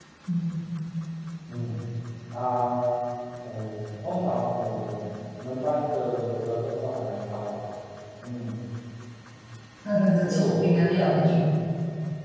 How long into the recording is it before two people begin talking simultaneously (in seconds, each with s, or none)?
10.2 s